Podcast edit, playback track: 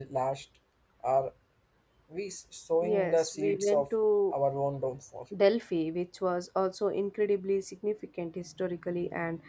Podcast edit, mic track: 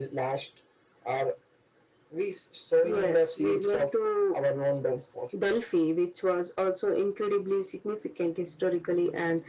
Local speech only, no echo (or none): none